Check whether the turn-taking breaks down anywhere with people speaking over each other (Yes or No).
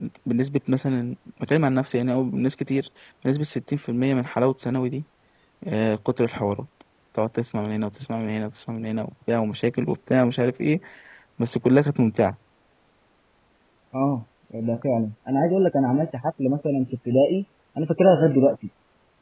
No